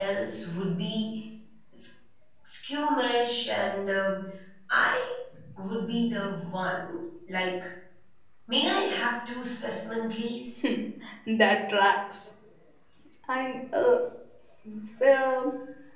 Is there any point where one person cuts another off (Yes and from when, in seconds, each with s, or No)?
No